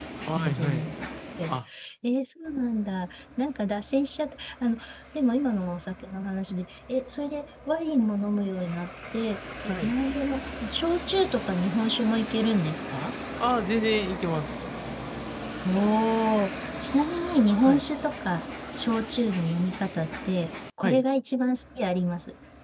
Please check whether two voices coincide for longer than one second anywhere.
No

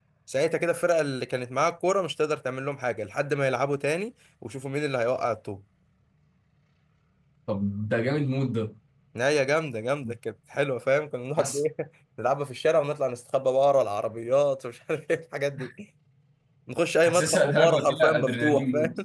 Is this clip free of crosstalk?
No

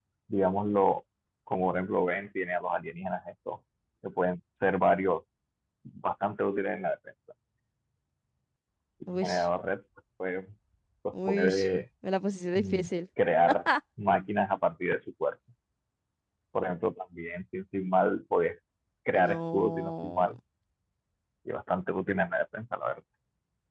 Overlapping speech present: Yes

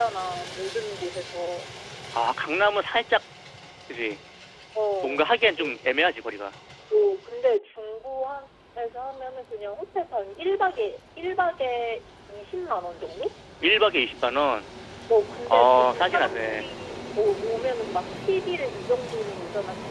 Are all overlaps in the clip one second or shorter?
No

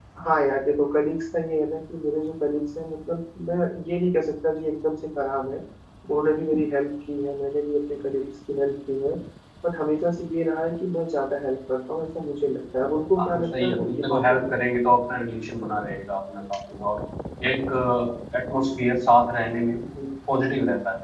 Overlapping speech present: Yes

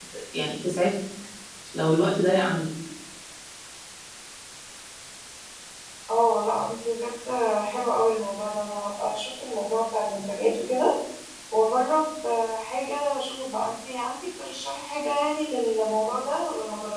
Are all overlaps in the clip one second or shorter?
Yes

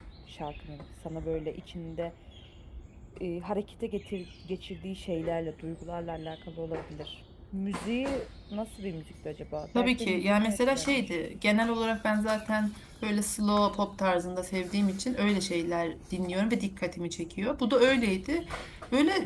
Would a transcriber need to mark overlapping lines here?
Yes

